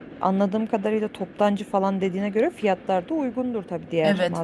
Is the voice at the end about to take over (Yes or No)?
Yes